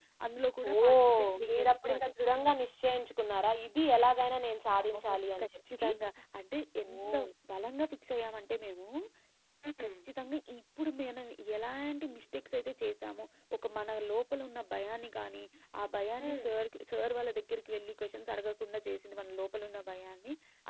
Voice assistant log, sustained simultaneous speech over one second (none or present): present